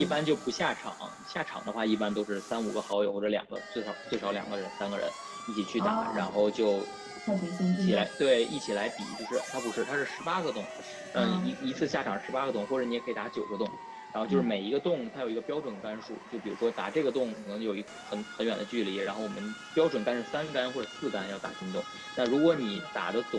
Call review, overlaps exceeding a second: none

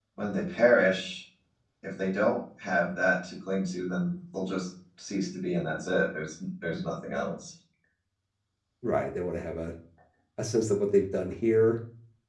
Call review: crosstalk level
none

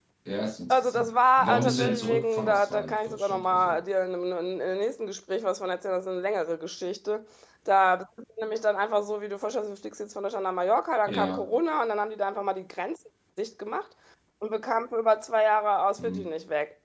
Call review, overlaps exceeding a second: present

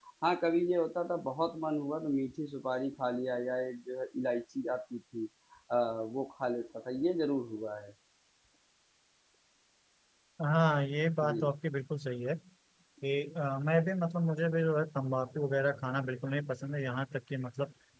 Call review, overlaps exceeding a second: none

